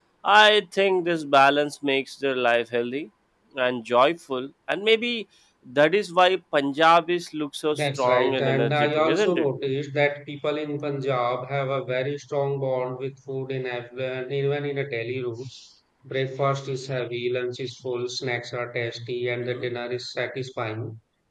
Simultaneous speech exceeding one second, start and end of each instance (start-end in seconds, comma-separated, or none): 7.7-9.4